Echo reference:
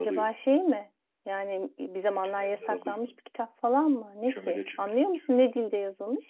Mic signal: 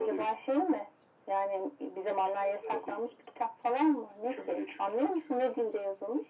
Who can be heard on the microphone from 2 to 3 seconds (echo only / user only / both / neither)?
echo only